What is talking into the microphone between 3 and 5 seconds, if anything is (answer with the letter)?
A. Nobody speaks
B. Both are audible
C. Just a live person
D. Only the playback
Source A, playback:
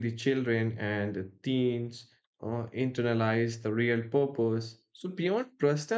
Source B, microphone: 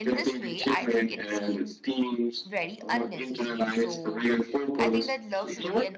B